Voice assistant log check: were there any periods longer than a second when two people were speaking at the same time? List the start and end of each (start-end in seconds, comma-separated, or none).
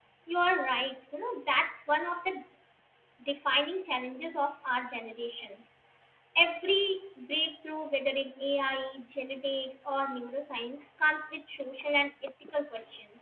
none